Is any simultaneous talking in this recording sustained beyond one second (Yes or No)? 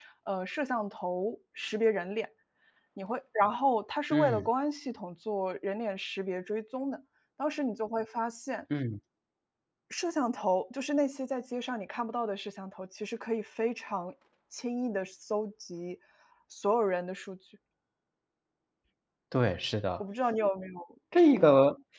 No